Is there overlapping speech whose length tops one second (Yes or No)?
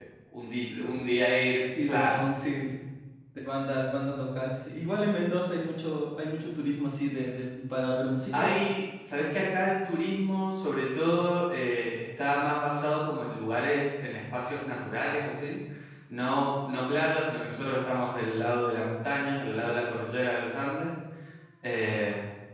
No